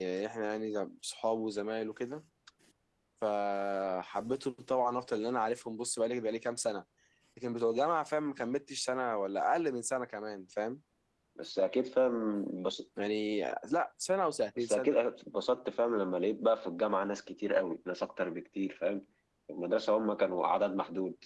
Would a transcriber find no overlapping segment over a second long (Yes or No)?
Yes